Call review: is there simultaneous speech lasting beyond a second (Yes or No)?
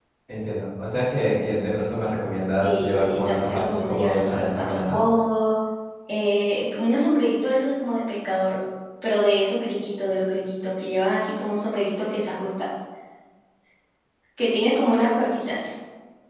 Yes